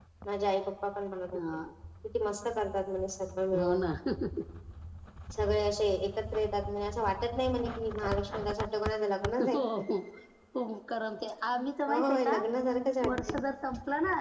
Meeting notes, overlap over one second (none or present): none